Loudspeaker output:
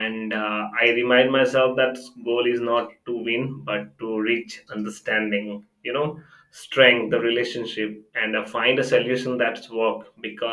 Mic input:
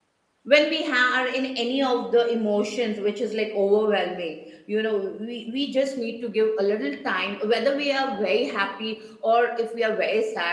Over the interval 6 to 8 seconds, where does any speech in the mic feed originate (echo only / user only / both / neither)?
user only